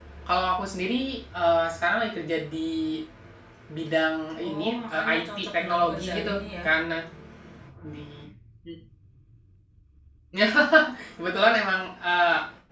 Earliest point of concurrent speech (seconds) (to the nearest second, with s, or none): 4 s